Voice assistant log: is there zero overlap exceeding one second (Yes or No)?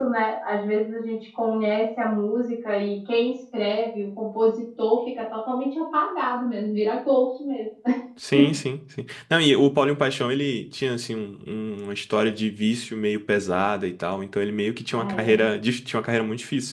Yes